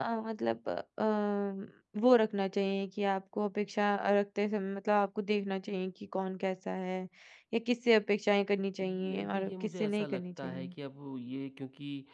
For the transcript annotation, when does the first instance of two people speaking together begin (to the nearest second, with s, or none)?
9 s